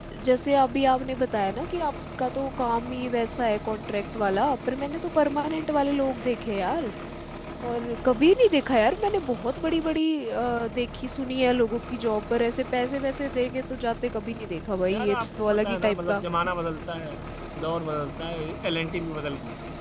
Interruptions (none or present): present